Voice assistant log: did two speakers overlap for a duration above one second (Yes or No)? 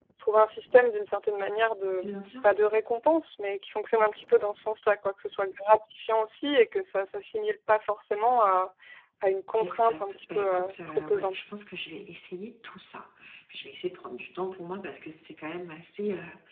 Yes